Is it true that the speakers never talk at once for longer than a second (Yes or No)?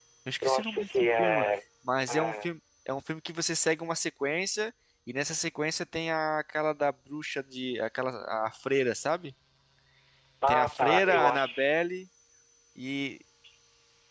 No